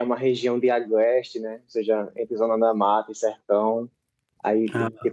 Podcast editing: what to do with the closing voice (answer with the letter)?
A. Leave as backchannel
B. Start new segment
A